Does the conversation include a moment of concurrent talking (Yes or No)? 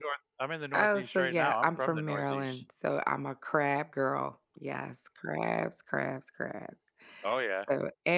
Yes